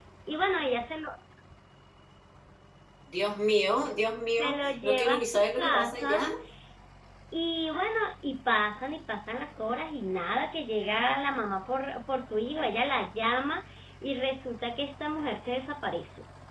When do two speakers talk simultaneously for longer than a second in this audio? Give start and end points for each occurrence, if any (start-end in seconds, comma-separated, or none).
4.4-6.2